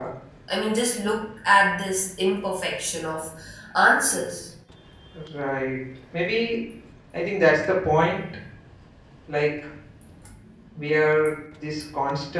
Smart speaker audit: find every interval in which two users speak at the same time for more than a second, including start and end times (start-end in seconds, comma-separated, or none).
none